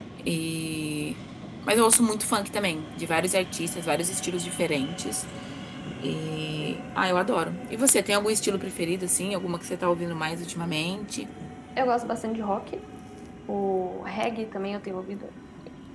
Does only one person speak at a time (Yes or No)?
Yes